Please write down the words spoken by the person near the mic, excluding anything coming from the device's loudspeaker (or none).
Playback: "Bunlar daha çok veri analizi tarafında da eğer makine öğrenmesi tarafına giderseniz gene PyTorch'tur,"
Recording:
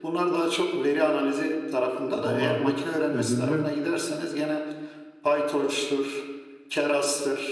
dolarlık ödüllü